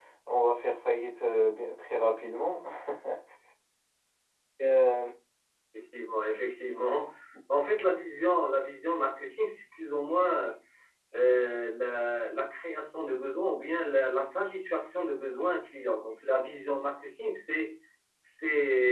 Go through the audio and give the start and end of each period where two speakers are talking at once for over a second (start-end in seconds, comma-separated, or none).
none